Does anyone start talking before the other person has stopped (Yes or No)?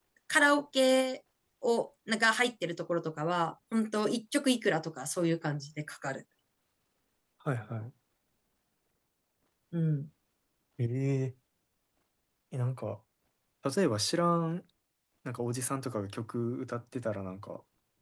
No